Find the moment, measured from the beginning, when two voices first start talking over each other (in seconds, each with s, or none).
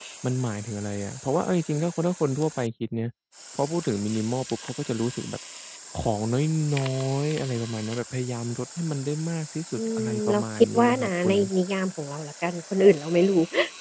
9.8 s